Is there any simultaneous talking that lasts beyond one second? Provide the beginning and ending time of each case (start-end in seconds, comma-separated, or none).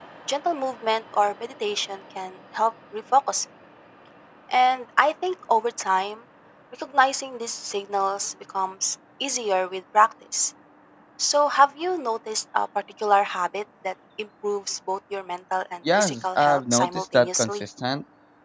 16.0-17.6